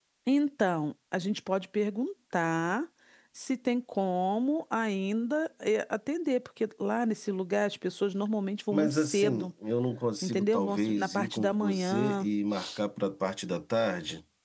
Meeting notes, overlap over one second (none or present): present